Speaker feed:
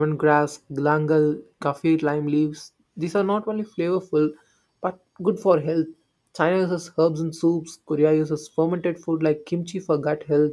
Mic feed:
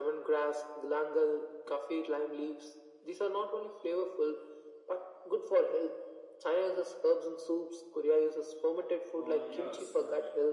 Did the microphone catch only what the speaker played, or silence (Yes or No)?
No